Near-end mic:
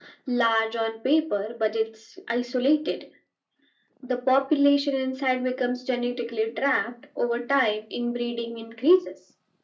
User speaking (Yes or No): No